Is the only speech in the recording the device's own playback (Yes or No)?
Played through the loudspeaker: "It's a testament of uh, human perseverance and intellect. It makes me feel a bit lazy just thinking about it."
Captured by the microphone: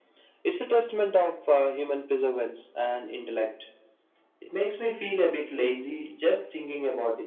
Yes